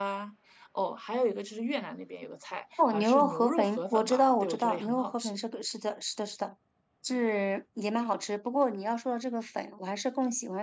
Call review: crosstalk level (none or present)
present